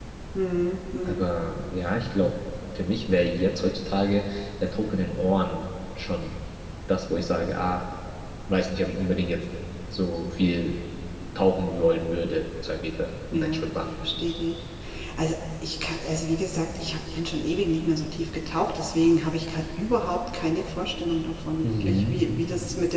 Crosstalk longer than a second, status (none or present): none